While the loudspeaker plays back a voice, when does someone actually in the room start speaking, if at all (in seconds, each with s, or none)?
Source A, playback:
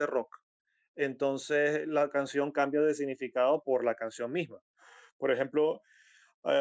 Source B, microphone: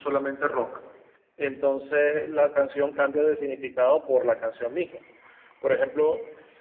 none